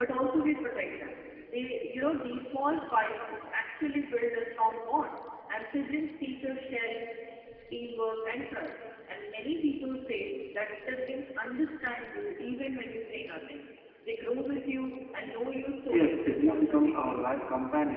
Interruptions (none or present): present